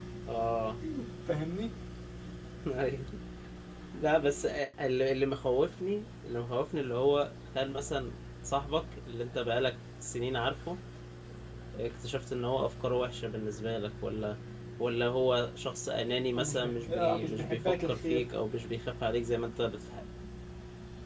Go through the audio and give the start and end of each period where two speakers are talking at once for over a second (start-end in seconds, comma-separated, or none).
16.4-18.3